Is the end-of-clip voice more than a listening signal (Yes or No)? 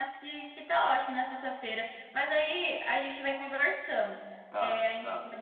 No